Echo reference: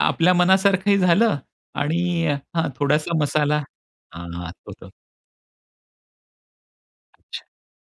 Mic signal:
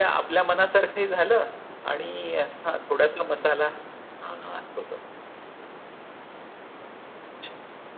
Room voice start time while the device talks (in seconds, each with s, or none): none